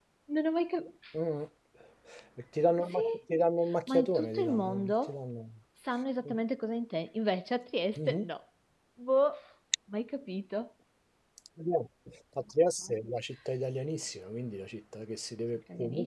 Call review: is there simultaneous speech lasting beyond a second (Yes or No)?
Yes